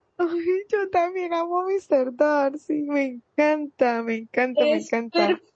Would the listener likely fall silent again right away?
No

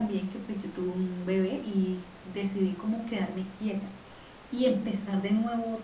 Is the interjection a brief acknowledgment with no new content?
Yes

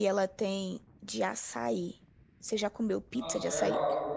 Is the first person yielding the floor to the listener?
Yes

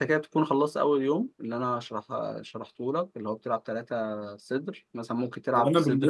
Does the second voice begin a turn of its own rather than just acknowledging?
Yes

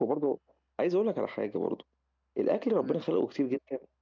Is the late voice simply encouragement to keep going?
Yes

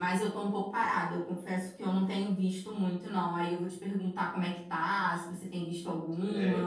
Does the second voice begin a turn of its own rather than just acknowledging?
Yes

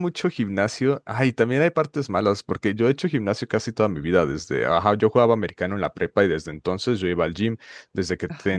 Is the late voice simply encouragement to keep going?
Yes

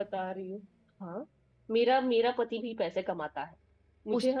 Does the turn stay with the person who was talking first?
No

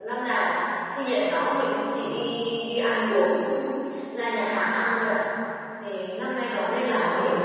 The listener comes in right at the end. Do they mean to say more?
Yes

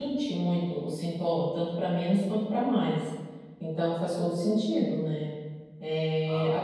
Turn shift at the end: No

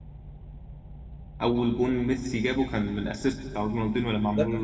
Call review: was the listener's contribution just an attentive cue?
No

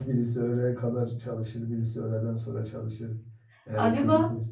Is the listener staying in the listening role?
Yes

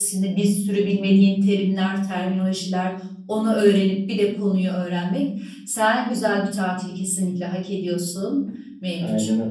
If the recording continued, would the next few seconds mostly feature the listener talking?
Yes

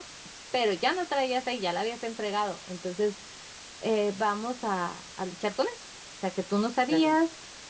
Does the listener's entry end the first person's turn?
No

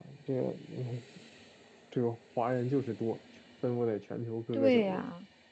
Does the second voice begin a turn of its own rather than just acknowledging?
Yes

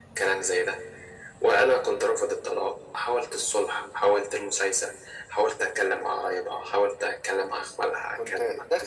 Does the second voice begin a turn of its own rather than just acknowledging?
Yes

